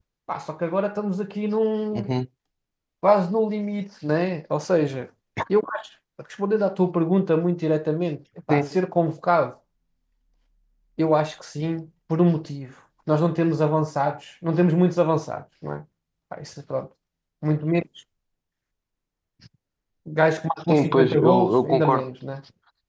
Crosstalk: present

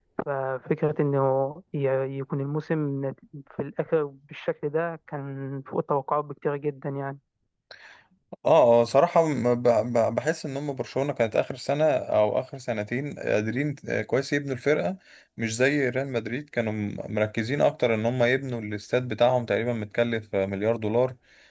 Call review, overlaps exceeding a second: none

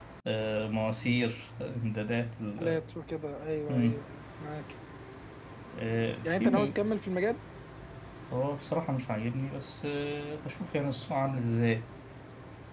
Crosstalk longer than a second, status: none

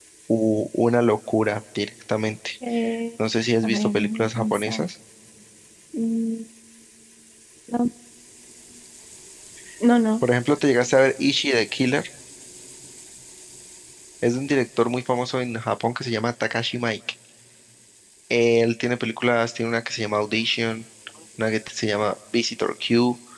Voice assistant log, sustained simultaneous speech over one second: present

